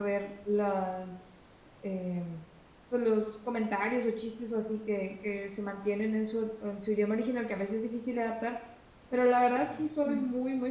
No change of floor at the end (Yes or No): Yes